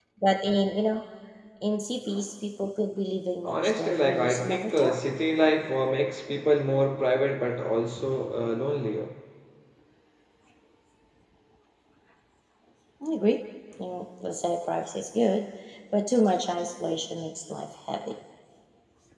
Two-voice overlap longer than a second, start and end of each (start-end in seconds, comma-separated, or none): 3.4-5.0